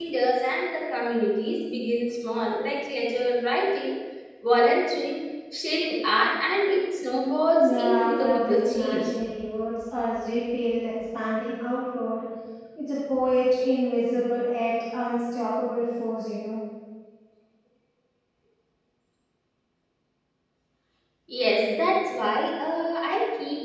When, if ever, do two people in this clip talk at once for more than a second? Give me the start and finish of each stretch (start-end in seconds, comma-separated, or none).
7.6-9.1